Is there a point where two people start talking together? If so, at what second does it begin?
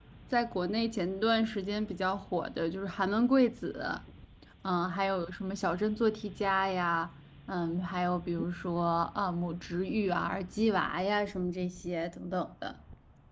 none

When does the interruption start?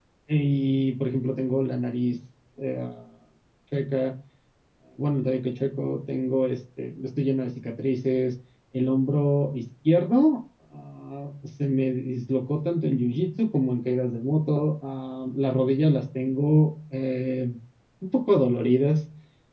none

